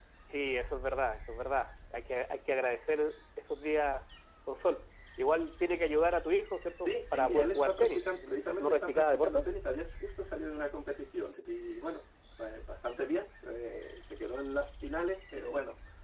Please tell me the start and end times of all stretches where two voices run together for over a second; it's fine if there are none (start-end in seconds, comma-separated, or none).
6.8-9.4